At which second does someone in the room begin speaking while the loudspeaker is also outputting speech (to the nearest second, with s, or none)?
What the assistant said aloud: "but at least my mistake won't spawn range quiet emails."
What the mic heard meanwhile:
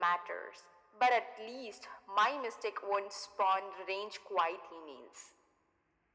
none